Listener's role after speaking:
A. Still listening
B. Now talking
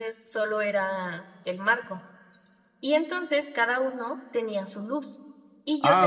B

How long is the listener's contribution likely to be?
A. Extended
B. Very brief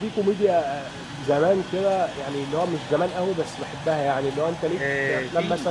A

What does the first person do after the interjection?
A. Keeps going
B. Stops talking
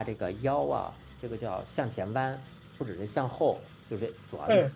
A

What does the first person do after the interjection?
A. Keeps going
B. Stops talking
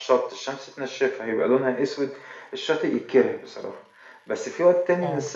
A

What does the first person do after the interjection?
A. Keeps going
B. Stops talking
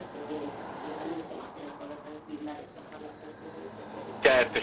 B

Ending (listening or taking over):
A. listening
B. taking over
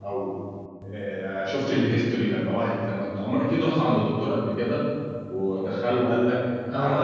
B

